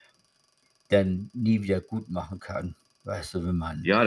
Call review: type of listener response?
taking over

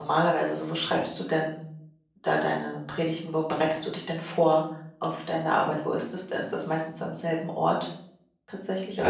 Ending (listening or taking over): taking over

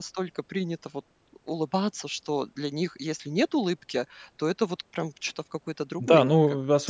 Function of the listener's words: taking over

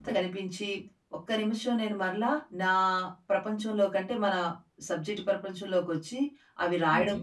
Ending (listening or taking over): listening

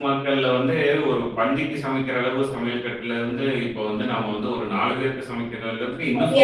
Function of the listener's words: taking over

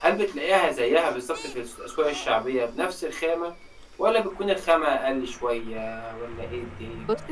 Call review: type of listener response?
taking over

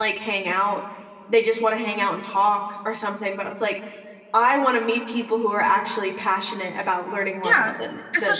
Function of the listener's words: taking over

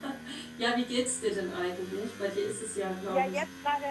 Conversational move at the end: taking over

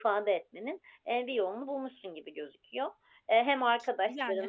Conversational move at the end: listening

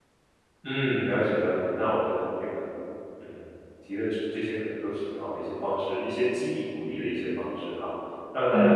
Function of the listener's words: listening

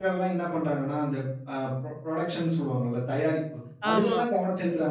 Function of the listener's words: listening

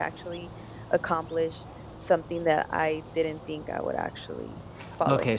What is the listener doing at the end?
taking over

